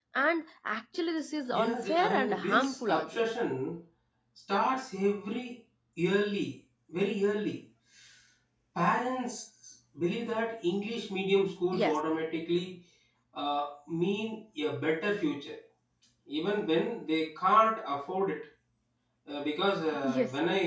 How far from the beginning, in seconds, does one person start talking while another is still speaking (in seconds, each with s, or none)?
1.5 s